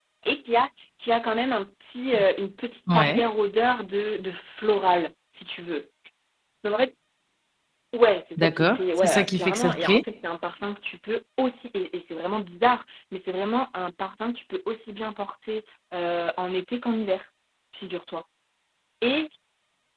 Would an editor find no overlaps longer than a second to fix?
No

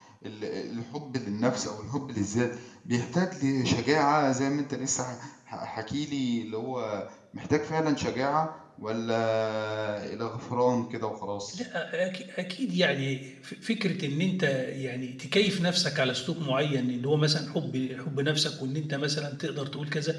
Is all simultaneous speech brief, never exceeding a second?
Yes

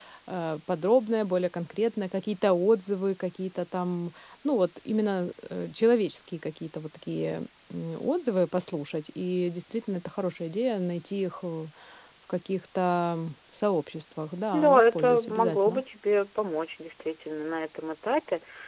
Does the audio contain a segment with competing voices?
Yes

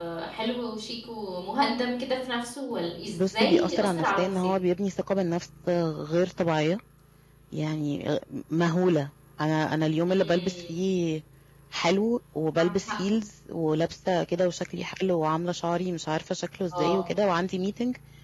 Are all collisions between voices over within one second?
No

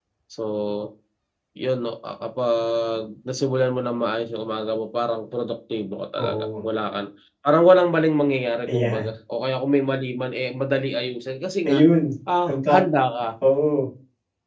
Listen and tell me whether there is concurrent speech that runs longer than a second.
No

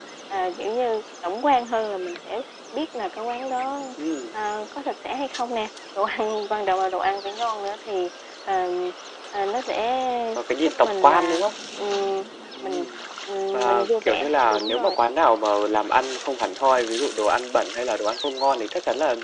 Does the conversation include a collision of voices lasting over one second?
Yes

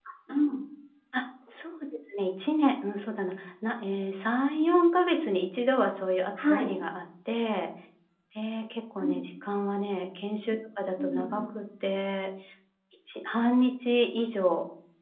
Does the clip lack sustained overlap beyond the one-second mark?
Yes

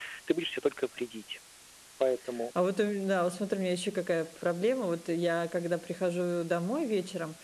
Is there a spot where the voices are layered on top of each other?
No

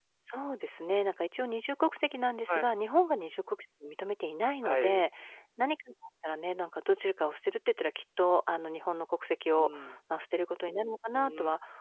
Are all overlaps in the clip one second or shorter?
Yes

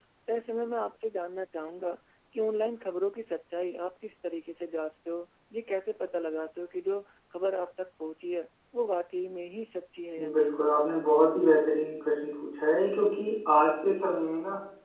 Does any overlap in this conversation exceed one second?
No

